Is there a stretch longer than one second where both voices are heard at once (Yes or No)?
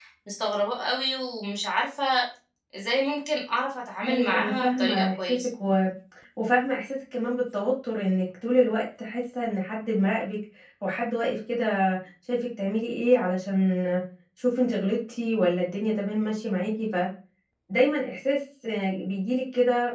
Yes